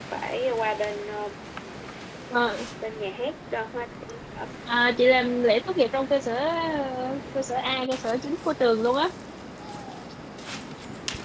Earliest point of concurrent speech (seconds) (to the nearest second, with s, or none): none